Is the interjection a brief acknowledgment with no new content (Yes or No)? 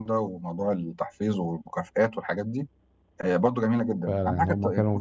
No